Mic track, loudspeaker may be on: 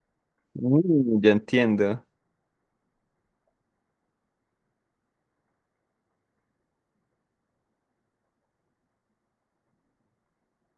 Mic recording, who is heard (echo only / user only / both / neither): user only